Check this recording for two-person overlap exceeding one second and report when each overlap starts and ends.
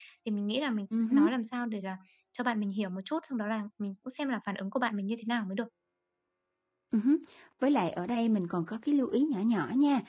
none

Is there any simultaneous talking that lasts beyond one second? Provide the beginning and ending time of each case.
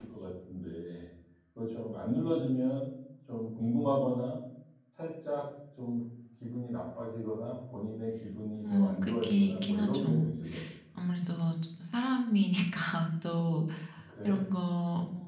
8.6-10.1

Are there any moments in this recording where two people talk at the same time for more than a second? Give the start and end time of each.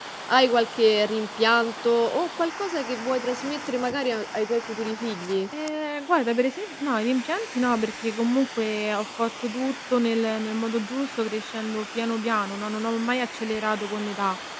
none

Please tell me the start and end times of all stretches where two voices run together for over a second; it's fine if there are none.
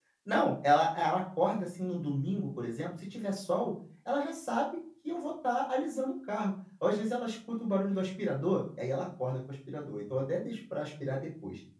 none

